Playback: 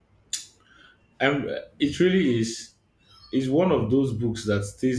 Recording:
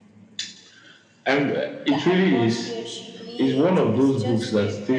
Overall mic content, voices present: both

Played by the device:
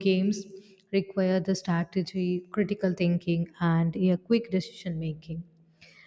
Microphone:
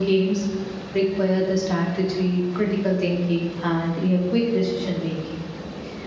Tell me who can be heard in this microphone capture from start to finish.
echo only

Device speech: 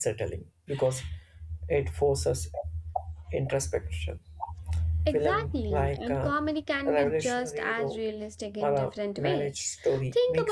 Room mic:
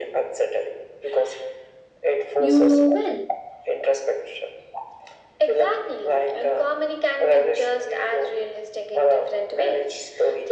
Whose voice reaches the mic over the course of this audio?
both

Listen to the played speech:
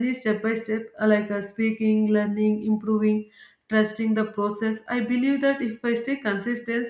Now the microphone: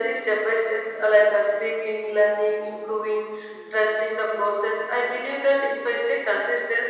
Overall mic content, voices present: echo only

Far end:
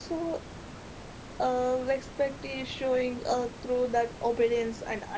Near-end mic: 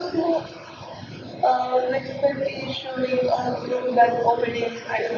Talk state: echo only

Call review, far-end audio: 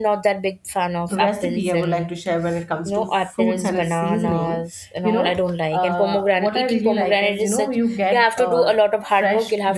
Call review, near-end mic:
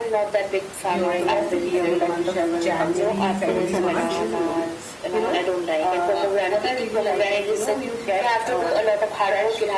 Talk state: both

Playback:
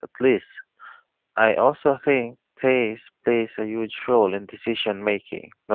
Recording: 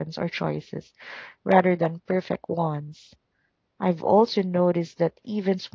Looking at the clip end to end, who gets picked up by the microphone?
user only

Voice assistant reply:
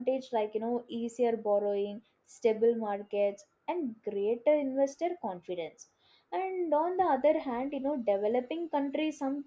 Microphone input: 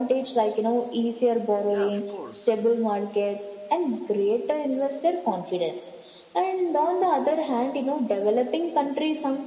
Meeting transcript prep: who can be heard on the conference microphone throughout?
both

